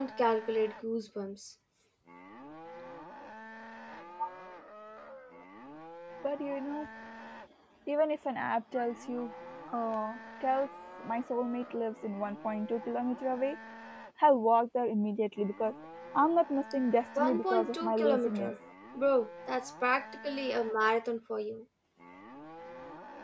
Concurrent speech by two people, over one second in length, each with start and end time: 17.2-18.5

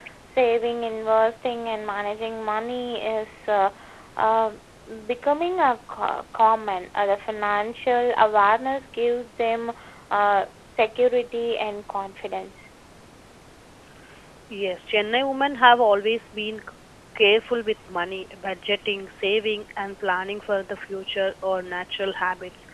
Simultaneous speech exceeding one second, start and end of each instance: none

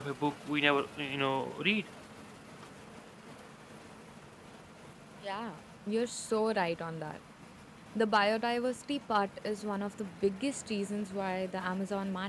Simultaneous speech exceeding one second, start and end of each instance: none

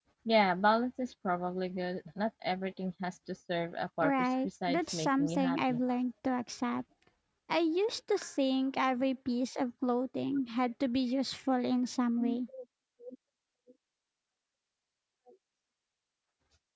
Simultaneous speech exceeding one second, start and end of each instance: 4.0-5.8

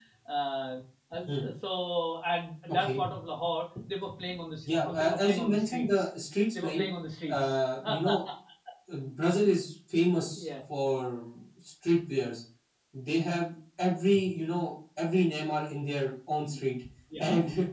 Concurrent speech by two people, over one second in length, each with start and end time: 4.8-6.1

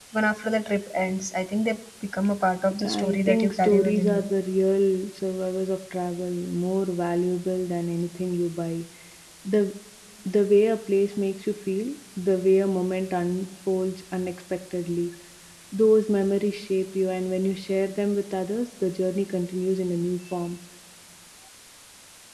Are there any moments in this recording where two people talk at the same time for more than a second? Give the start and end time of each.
2.8-4.3

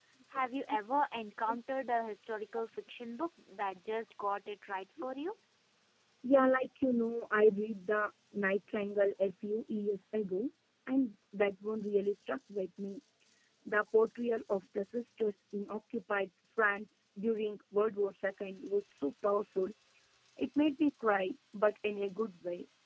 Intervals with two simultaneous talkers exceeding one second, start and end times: none

